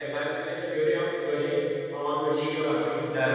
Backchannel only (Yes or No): No